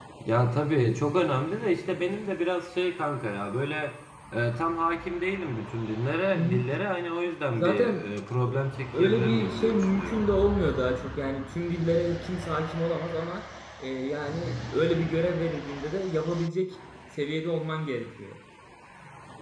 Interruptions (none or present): present